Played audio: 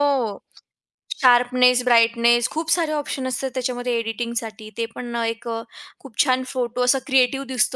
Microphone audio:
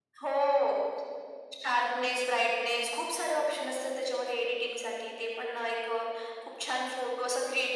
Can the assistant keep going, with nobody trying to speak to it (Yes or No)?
Yes